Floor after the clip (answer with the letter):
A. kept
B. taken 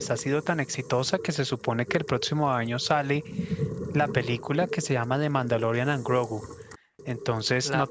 A